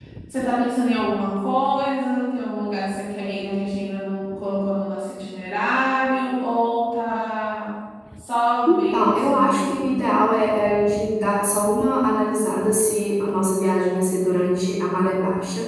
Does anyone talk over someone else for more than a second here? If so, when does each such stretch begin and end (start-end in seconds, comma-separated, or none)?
8.7-10.0